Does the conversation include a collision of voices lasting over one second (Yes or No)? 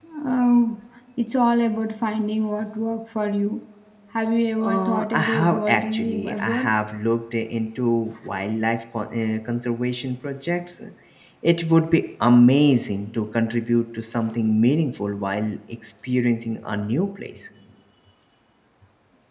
Yes